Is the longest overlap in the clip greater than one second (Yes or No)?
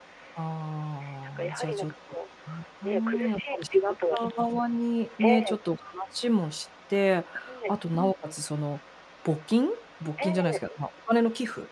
Yes